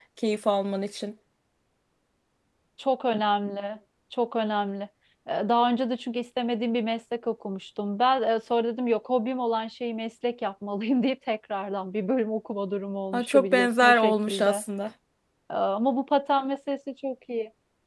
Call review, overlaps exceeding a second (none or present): present